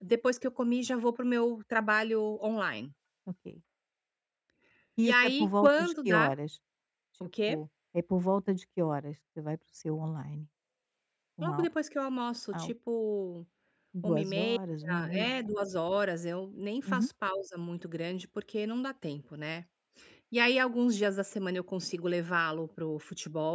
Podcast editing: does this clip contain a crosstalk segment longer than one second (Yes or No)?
Yes